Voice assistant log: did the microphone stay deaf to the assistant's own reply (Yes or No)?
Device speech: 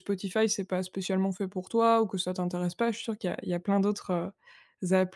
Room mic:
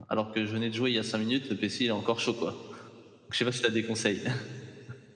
Yes